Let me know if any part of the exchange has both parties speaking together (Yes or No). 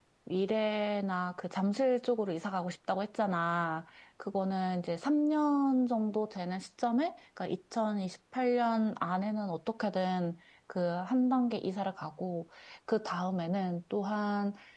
No